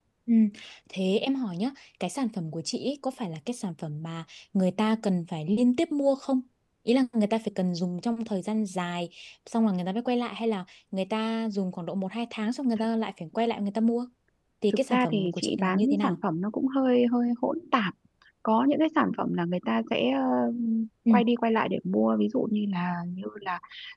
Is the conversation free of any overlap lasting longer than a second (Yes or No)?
No